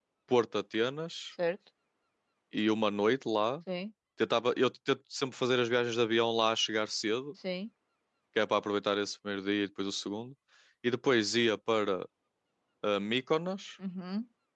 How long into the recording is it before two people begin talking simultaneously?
none

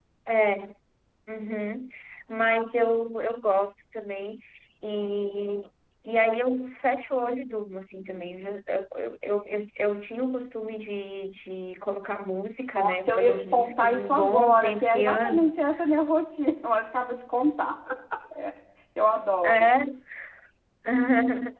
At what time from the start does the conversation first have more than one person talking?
12.8 s

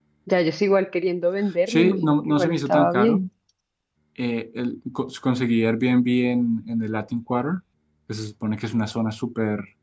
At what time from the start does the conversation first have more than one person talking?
1.7 s

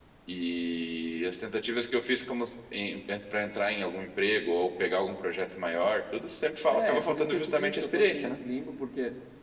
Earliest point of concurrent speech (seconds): 6.7 s

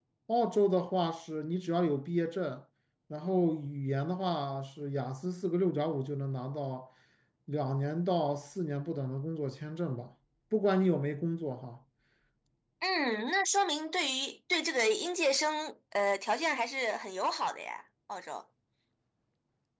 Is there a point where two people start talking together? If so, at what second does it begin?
none

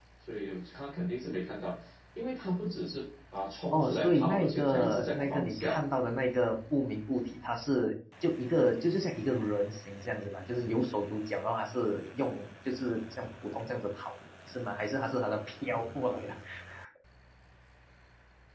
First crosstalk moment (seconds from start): 3.7 s

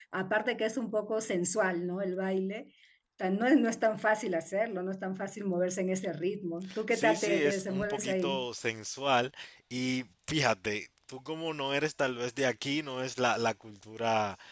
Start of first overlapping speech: 6.9 s

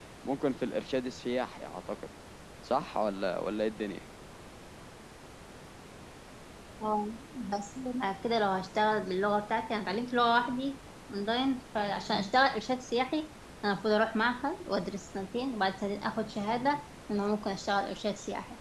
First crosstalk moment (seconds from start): none

